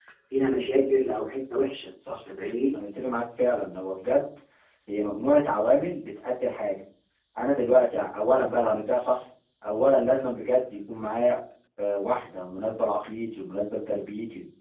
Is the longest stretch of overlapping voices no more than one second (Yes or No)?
Yes